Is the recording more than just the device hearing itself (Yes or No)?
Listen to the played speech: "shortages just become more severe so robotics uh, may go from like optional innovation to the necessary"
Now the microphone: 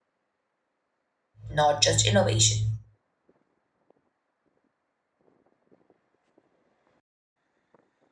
Yes